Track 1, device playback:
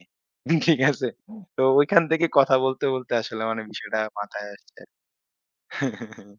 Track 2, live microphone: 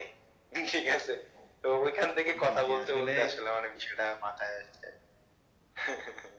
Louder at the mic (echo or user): echo